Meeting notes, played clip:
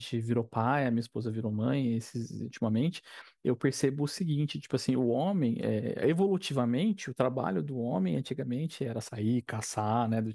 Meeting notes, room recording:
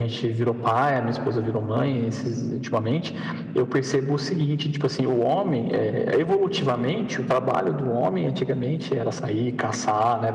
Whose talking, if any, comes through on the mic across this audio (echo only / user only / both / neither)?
echo only